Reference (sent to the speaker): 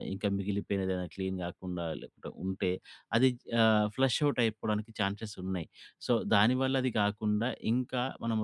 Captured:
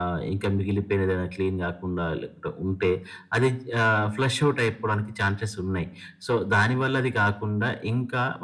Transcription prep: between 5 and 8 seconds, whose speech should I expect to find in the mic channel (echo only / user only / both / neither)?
echo only